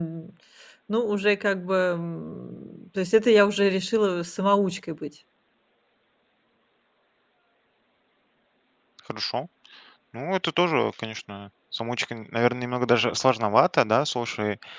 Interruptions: none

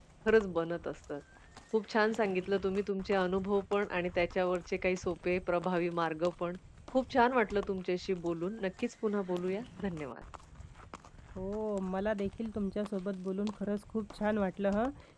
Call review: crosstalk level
none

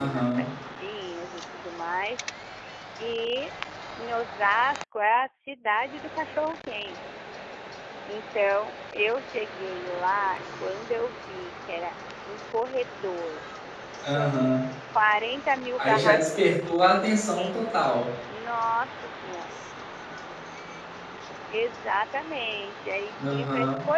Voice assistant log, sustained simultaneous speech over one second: present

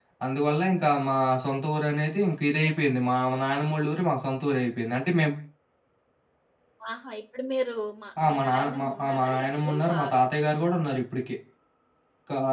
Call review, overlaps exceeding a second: present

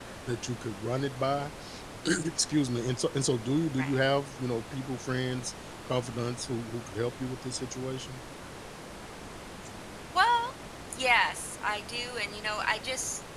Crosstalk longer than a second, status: none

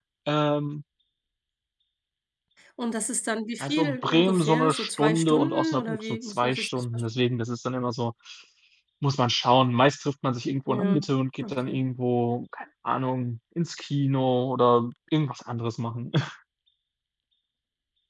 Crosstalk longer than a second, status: present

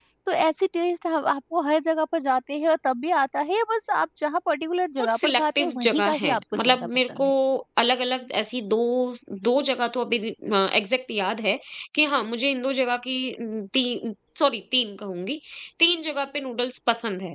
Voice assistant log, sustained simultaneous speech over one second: present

